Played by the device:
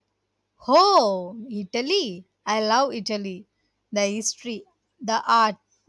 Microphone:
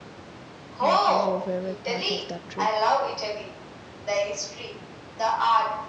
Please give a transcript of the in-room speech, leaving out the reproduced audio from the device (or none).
What was your favorite part of that trip?